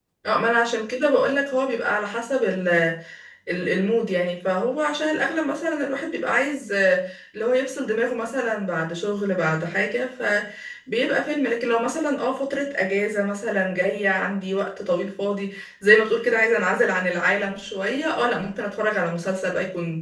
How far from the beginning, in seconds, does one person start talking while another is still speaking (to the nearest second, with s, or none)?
none